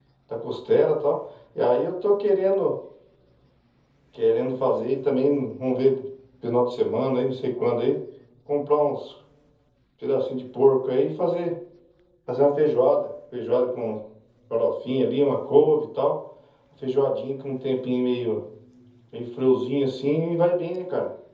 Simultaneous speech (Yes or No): No